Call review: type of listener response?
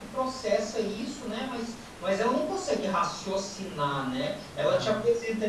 listening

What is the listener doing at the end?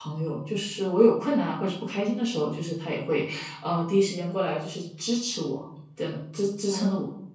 taking over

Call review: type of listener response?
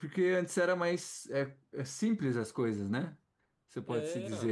listening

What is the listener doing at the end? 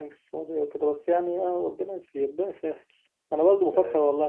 listening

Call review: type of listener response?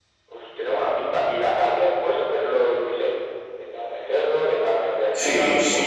taking over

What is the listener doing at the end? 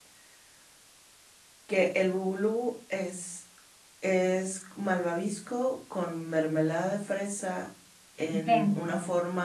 listening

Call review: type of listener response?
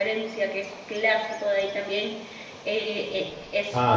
taking over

